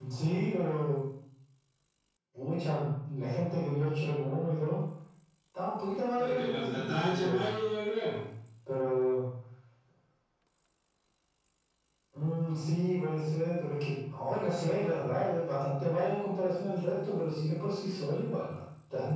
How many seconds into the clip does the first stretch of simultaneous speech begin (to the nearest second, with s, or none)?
6 s